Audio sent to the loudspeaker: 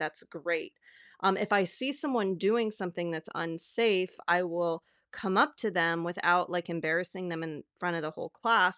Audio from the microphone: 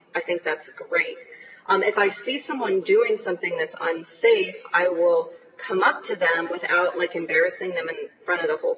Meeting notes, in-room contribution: none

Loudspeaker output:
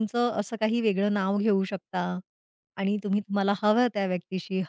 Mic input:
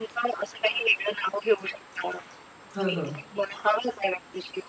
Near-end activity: present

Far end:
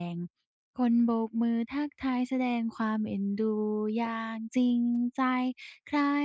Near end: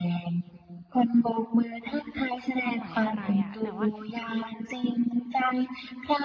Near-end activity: present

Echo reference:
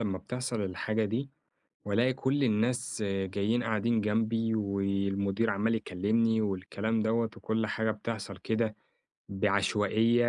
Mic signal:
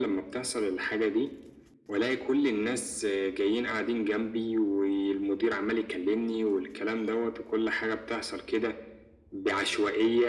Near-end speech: none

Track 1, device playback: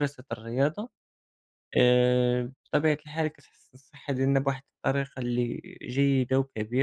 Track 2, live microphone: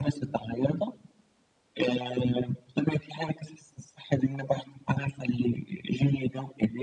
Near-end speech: none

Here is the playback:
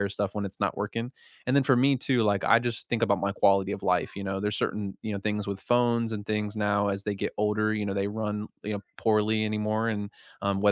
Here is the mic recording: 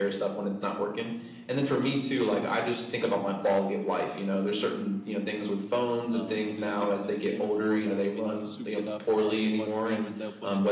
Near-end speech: present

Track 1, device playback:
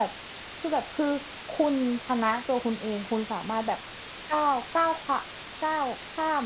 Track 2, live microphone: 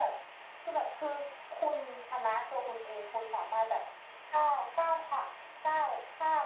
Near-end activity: none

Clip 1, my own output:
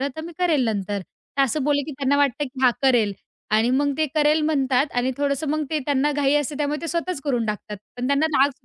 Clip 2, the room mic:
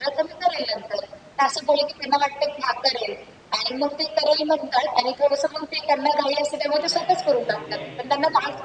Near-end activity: present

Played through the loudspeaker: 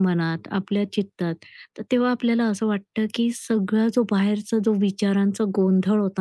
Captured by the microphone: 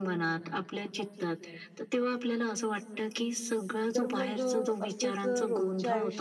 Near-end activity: present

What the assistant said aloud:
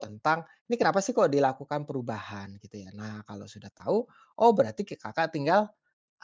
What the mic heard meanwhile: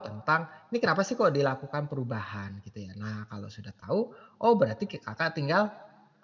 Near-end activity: none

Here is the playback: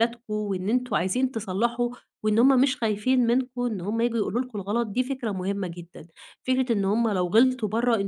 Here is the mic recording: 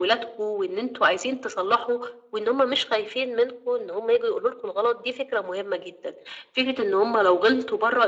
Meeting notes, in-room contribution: none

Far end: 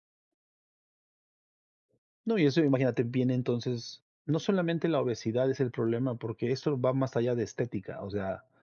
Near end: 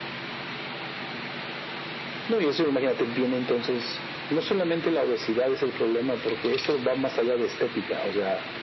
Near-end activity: none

